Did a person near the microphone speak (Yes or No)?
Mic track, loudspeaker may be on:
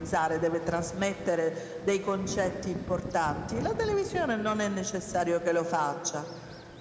No